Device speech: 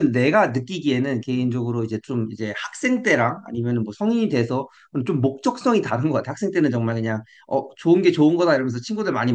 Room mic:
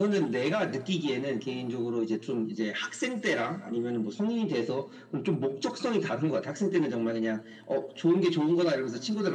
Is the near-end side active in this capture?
No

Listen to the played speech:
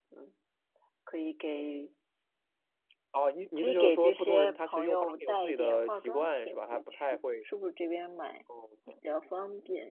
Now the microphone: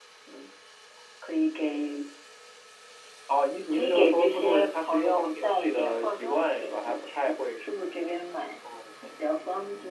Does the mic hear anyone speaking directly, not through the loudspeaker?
No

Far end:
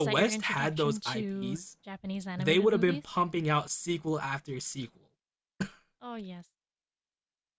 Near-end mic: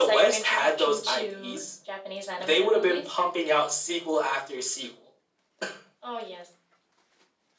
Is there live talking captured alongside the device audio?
No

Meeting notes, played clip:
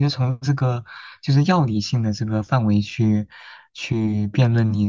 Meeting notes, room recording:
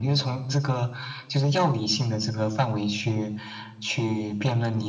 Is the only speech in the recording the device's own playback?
Yes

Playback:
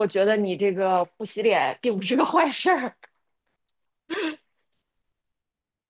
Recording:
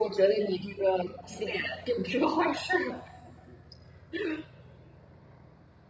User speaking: No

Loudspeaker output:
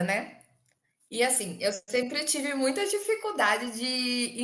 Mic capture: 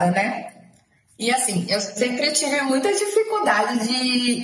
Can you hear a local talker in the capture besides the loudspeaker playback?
No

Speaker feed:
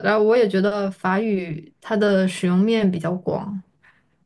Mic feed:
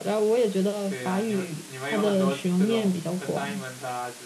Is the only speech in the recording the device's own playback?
No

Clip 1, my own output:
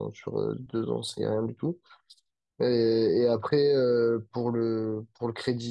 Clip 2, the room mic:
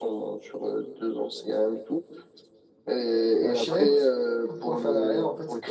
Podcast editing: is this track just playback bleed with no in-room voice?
No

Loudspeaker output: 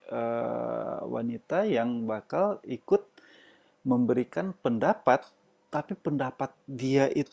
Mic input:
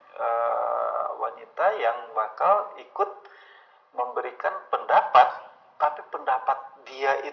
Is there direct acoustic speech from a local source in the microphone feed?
No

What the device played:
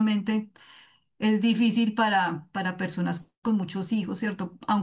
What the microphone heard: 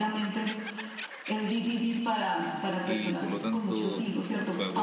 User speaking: Yes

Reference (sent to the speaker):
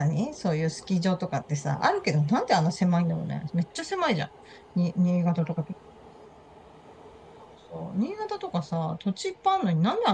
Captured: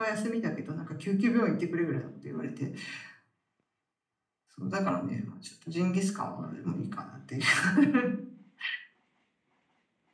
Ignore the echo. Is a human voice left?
Yes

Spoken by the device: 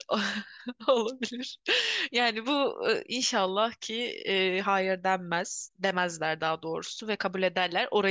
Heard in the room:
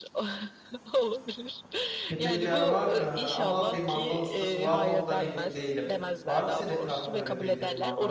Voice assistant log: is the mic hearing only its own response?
No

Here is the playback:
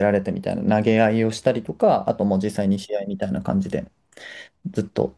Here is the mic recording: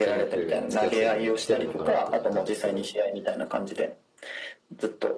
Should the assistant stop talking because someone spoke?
Yes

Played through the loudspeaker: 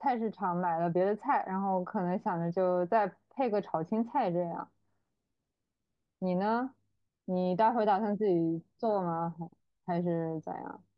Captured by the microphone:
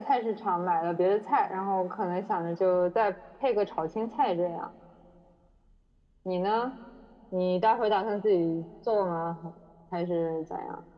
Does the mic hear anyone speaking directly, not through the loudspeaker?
No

